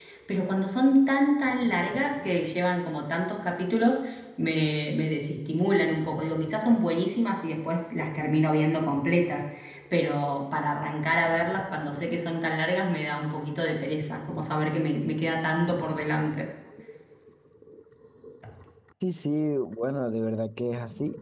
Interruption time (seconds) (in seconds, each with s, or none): none